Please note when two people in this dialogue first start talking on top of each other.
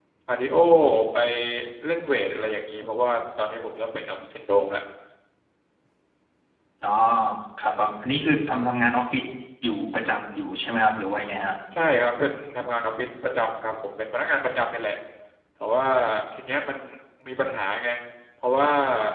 none

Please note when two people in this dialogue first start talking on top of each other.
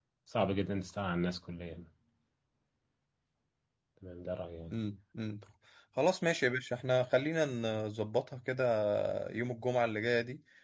none

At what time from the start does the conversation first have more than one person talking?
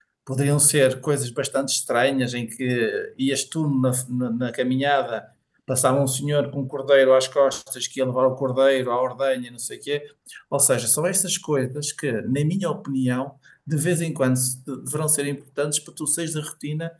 none

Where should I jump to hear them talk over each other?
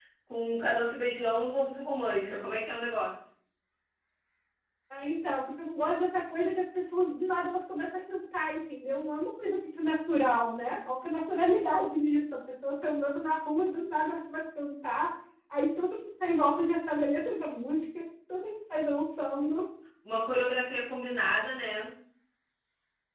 none

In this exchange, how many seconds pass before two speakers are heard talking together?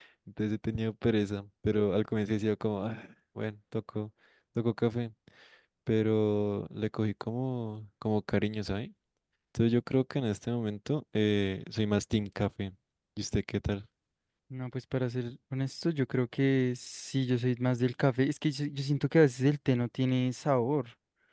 none

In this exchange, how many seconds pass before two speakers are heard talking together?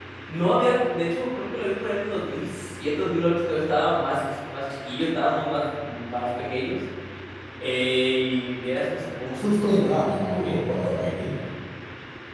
none

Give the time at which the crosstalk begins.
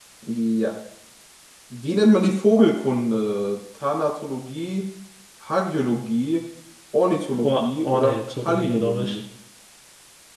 7.4 s

